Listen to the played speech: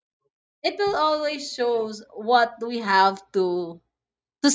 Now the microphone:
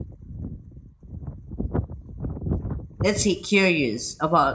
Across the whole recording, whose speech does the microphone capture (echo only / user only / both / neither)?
user only